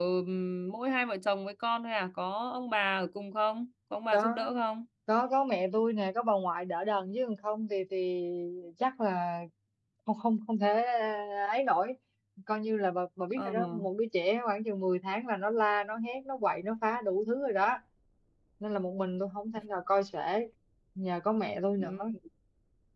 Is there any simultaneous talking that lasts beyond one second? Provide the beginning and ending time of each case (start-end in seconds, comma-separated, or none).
none